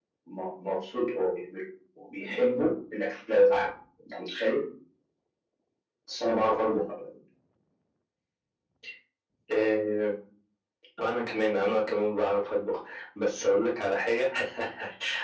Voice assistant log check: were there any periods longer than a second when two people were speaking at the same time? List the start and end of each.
none

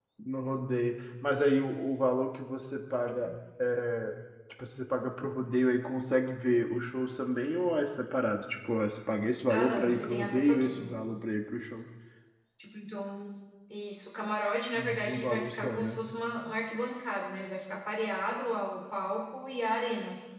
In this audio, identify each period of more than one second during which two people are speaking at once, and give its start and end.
9.5-10.9, 14.8-16.0

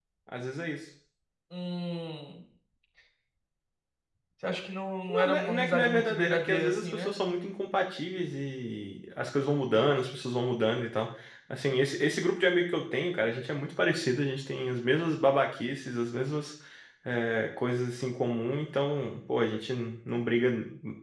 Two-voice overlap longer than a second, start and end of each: 5.1-7.1

